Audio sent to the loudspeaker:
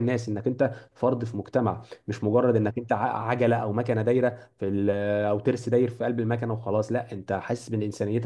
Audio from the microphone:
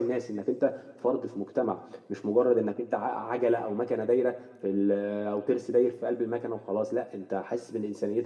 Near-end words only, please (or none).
none